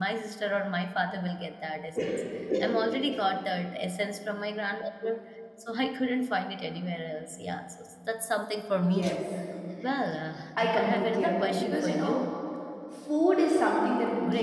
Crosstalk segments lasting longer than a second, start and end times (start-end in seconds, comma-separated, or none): 10.6-12.2